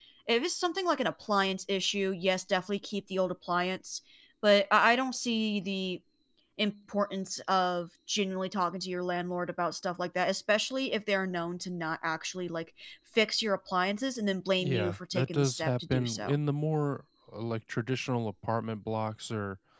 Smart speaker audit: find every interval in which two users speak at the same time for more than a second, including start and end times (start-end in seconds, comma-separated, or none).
14.6-16.4